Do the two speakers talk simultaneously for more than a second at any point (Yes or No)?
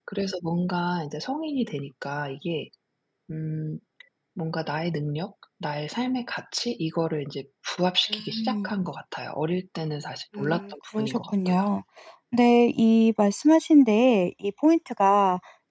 Yes